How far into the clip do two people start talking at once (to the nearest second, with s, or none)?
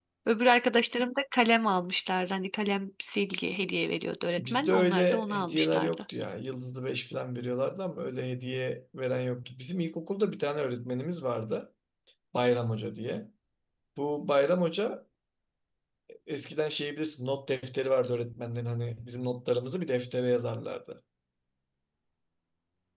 4 s